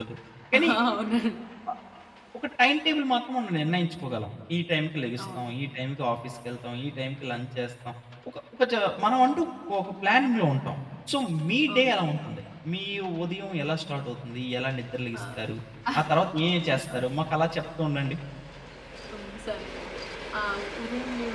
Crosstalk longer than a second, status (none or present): none